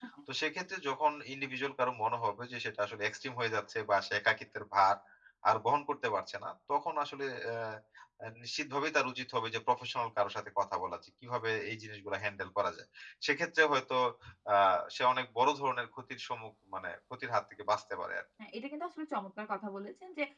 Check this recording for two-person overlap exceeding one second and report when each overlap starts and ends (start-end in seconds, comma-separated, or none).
none